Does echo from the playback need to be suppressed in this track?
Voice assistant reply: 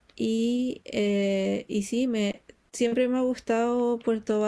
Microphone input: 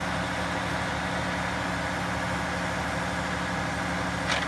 No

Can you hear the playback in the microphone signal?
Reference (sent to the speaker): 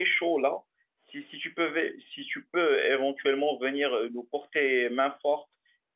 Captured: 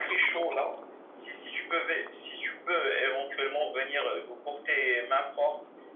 Yes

